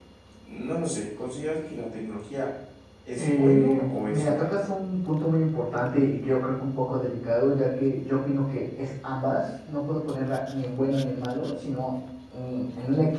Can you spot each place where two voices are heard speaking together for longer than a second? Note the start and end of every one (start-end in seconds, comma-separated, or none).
3.2-4.6